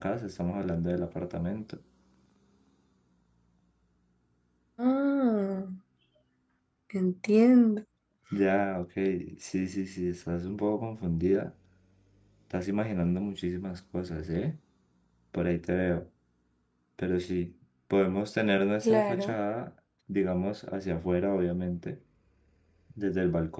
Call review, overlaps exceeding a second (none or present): none